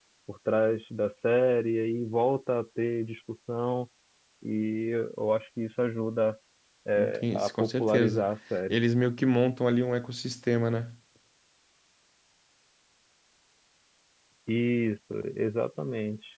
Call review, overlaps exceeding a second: present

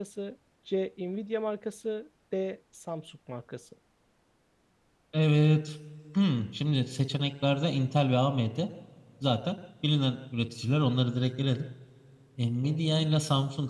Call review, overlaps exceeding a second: none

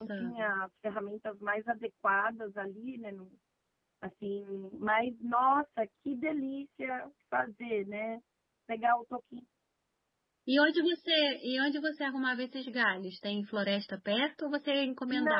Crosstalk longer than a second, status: none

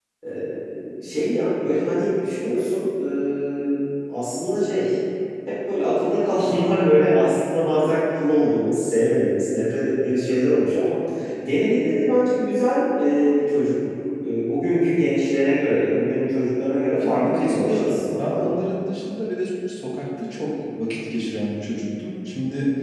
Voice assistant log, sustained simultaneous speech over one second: present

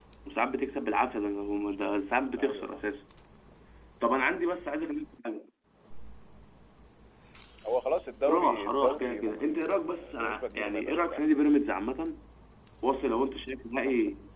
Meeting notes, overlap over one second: present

